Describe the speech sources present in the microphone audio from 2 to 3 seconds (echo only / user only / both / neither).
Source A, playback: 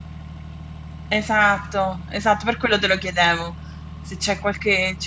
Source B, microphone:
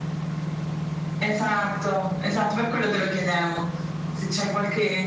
echo only